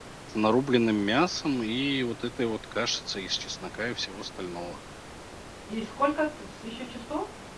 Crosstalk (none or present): none